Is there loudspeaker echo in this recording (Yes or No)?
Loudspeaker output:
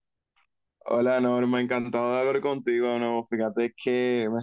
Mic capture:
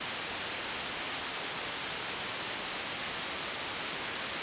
No